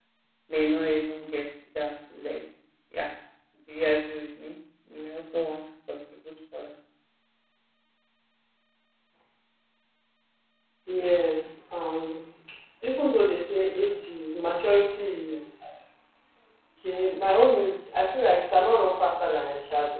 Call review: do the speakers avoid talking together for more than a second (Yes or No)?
Yes